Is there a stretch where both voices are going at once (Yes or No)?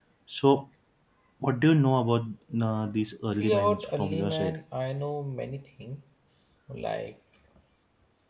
Yes